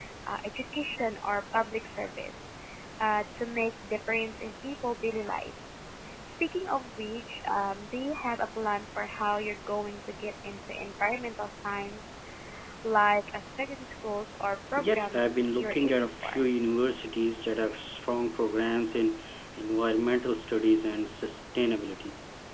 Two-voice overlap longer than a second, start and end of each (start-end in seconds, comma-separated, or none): 14.8-16.4